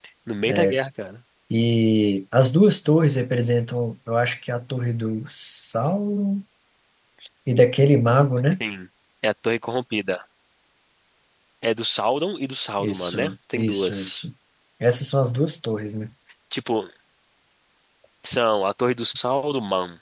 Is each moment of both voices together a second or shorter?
No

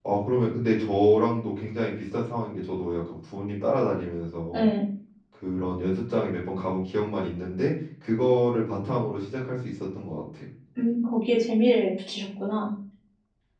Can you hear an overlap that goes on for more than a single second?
No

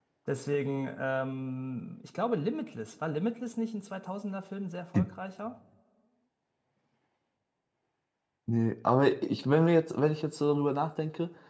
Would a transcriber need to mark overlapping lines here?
No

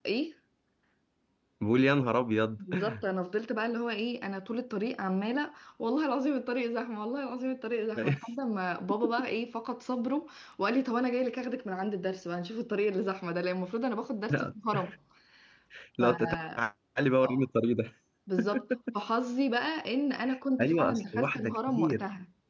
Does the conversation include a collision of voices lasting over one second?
Yes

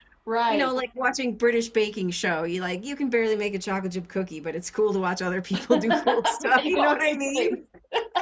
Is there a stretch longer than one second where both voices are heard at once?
Yes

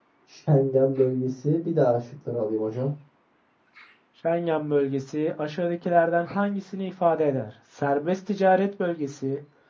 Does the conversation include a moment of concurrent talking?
No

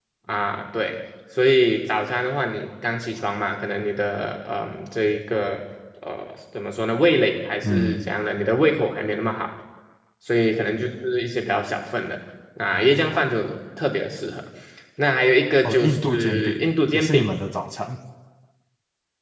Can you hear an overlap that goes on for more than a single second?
Yes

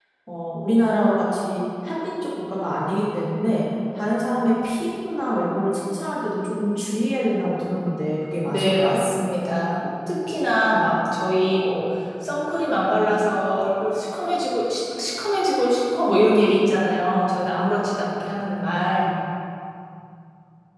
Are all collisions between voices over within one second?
Yes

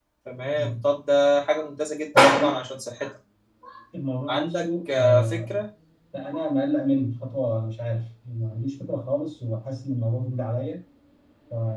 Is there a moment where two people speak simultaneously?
Yes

